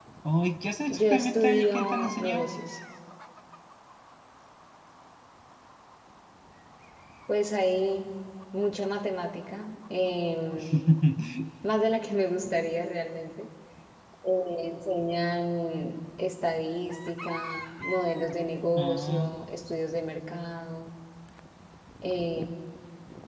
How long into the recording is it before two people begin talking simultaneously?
1 s

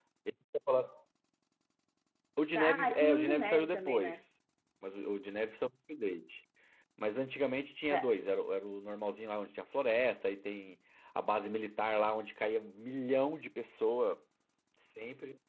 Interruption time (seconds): 3 s

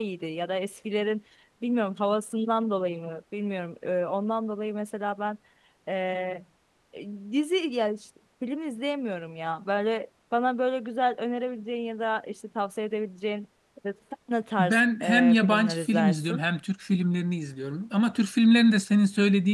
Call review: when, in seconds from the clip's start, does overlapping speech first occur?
15 s

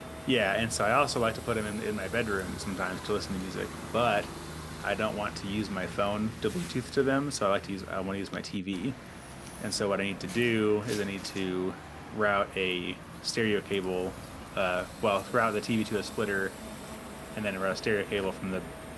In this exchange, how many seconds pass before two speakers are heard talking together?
none

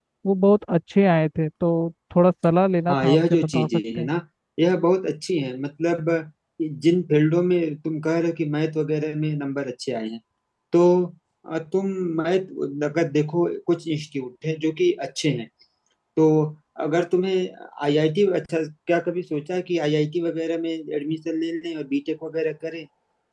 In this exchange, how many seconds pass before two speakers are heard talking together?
3 s

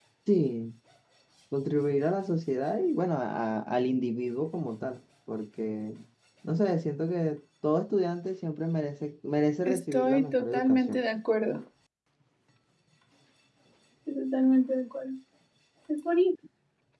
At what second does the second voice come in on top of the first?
10 s

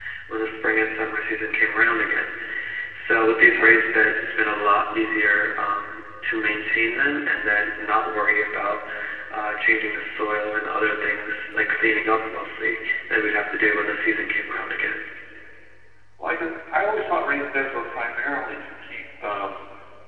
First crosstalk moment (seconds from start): none

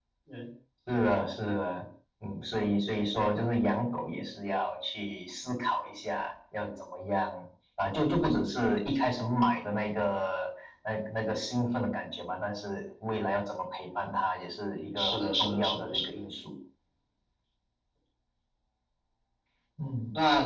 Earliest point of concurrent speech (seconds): 15 s

